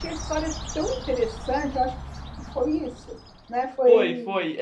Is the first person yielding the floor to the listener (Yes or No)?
Yes